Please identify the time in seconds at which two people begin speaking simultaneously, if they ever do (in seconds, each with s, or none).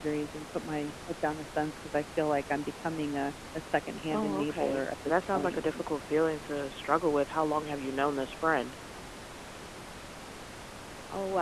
4.1 s